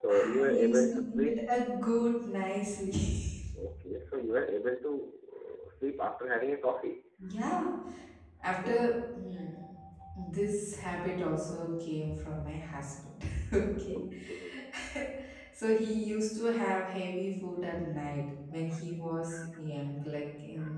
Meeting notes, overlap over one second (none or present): present